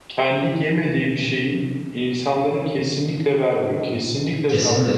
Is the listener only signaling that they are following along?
No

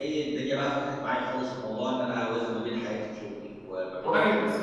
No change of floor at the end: No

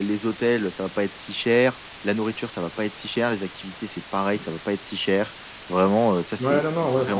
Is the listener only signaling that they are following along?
No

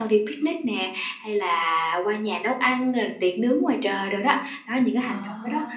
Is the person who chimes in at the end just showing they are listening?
Yes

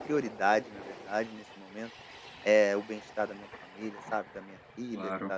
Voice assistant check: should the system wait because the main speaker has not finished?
Yes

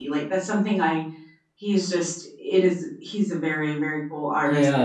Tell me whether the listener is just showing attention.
No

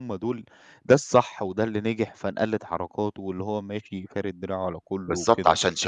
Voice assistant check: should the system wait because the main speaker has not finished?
No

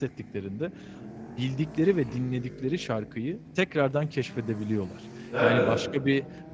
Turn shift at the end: No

